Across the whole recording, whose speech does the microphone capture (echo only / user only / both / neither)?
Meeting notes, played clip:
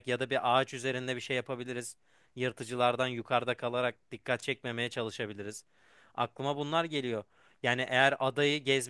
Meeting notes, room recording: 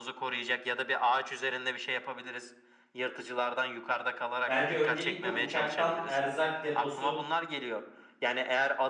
both